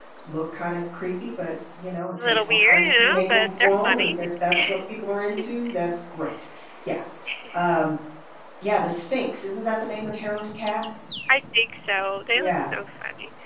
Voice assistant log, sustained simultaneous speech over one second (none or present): present